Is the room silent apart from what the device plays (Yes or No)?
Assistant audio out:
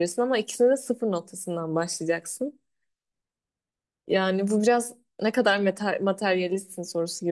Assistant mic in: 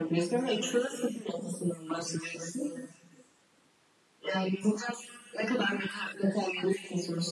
Yes